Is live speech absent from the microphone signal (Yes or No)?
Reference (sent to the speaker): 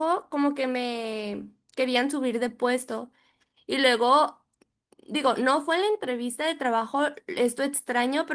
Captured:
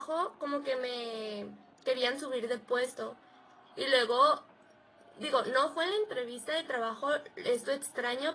Yes